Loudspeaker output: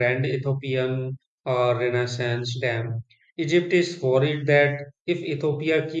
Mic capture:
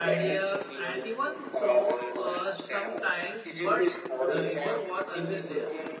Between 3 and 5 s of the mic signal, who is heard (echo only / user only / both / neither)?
both